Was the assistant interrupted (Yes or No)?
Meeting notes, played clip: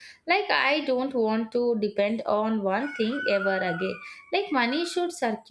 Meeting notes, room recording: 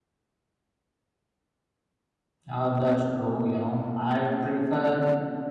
Yes